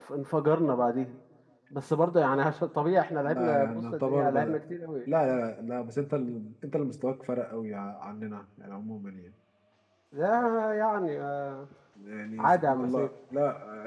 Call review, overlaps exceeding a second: present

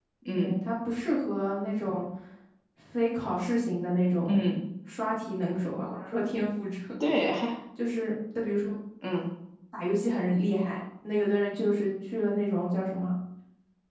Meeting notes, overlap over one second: none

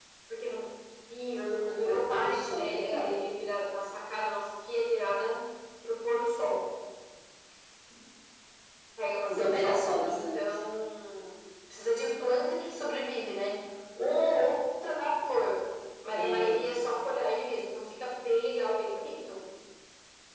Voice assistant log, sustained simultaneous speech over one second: present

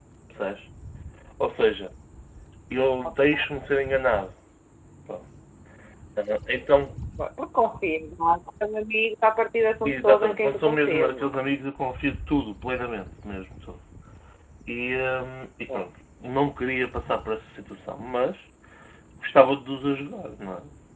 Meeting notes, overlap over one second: present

